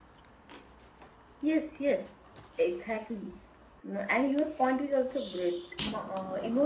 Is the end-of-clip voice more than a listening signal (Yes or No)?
No